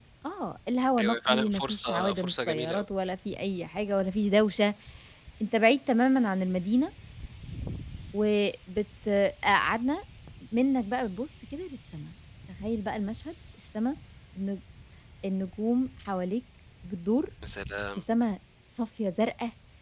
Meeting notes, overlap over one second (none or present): present